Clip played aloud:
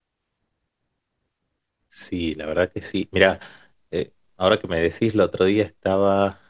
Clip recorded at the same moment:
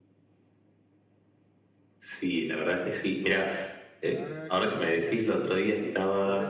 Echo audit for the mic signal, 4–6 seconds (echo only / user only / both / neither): both